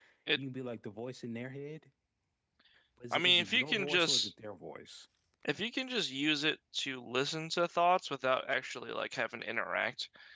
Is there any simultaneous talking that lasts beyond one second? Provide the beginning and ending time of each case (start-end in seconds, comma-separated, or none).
3.1-4.3